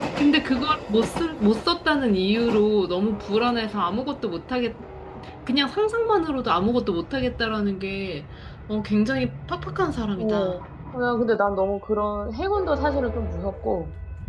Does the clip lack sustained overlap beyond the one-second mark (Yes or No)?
Yes